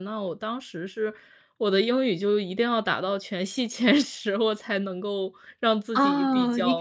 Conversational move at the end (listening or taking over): taking over